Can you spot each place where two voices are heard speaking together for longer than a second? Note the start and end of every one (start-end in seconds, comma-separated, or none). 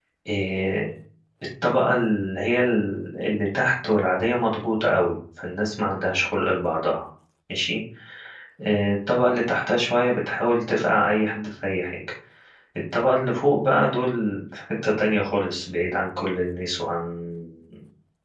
none